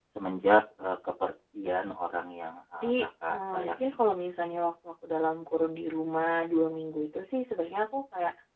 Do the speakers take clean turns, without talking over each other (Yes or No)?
No